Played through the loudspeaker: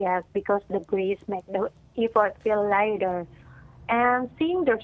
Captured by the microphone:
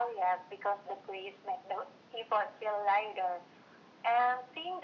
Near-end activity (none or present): none